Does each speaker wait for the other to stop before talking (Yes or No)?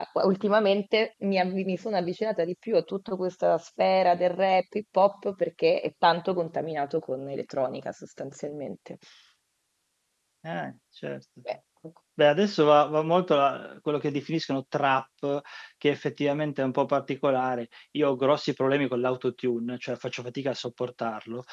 Yes